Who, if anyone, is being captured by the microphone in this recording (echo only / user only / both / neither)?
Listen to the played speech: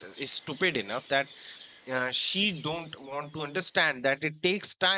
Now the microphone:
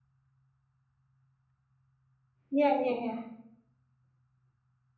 user only